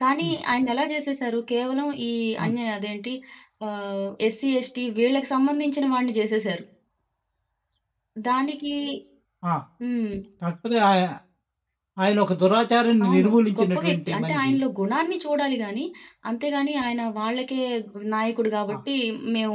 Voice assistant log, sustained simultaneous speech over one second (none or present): present